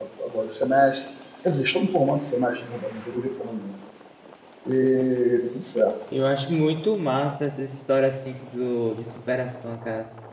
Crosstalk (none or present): none